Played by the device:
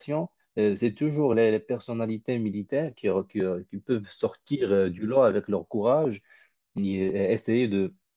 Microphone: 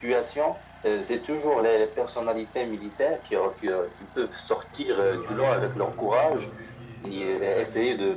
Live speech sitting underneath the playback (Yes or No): Yes